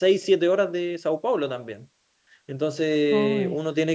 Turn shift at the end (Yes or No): No